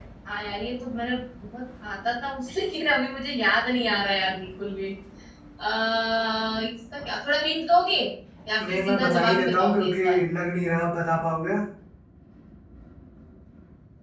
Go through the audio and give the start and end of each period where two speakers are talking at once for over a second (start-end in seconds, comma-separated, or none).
8.7-9.9